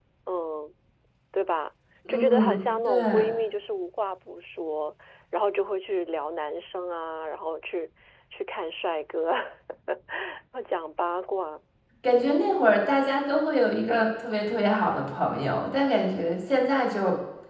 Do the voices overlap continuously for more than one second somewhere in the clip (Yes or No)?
Yes